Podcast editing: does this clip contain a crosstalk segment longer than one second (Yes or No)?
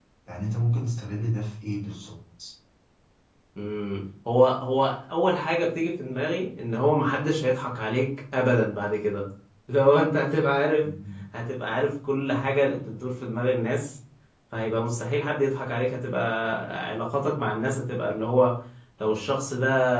No